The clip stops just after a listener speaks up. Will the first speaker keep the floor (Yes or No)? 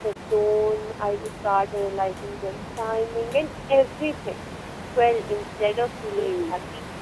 Yes